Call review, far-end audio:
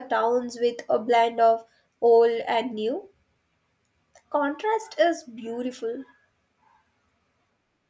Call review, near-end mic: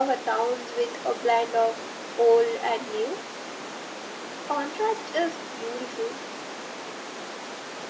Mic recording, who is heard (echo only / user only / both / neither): echo only